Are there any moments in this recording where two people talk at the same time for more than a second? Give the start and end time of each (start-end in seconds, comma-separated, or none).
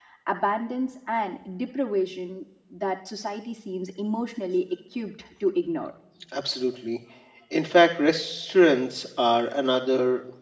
none